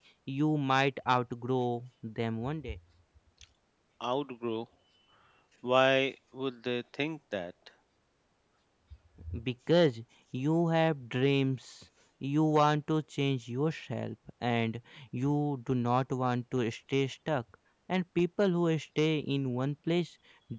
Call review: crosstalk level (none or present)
none